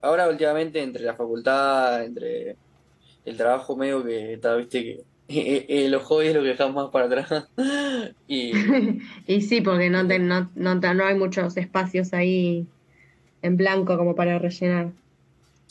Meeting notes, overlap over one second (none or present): none